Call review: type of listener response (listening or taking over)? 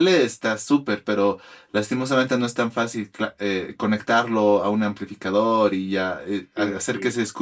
listening